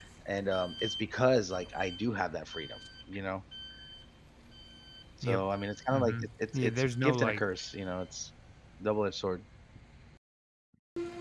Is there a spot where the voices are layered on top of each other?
Yes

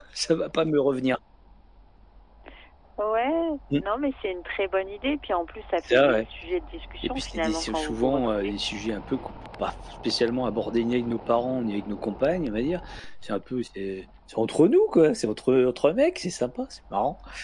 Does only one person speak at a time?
No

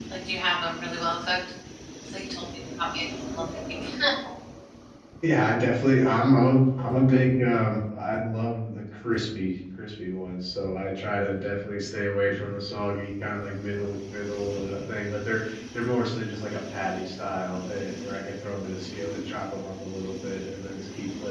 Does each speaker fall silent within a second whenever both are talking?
Yes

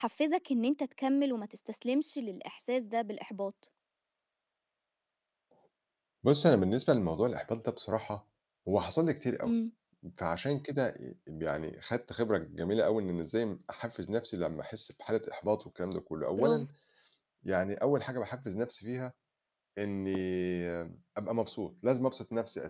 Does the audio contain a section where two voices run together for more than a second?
No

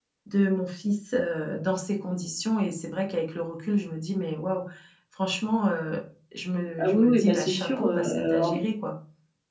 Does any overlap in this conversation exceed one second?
Yes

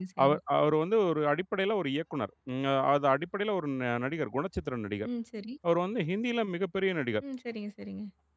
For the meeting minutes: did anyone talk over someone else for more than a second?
No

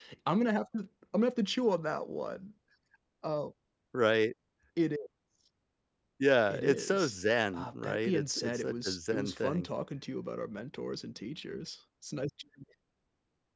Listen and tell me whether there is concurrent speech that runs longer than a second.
Yes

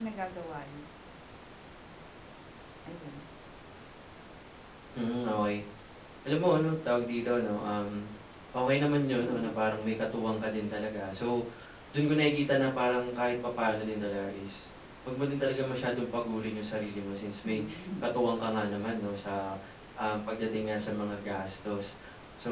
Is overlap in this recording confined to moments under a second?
Yes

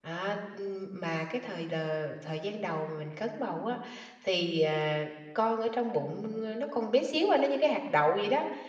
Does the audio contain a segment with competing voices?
No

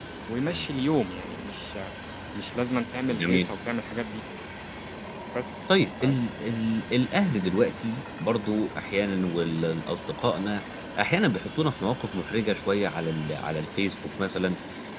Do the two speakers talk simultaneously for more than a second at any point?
No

